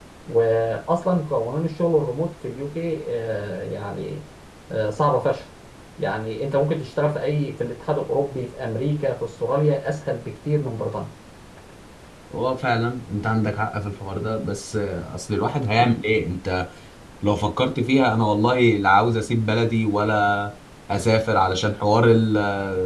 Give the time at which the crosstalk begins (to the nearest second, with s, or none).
none